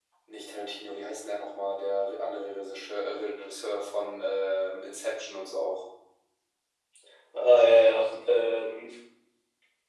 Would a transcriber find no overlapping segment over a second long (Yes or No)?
Yes